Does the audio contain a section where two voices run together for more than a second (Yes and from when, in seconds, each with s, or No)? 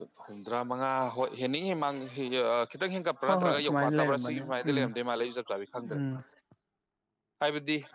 Yes, from 3.3 s